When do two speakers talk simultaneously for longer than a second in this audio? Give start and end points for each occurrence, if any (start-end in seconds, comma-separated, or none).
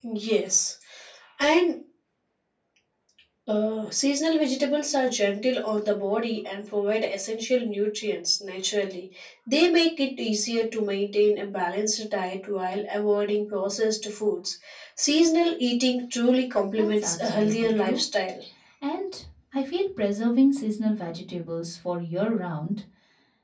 16.8-18.0